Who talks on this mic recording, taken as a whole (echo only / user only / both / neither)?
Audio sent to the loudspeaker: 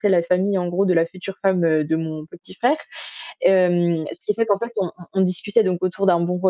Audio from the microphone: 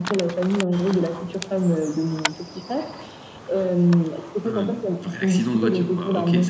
both